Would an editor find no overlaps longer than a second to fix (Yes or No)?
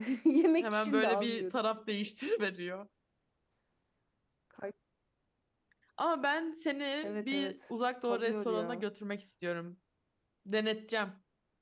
No